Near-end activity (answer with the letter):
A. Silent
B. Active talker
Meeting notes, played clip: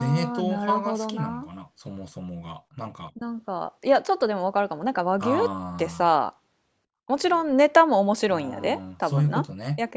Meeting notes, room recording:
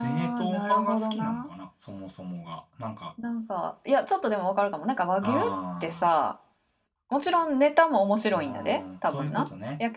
A